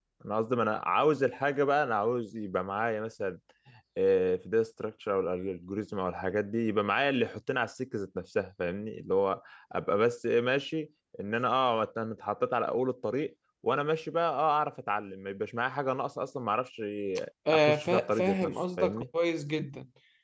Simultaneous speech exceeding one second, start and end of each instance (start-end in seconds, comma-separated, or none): 17.5-19.0